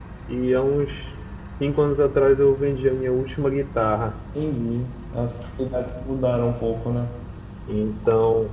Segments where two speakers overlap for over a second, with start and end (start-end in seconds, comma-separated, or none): none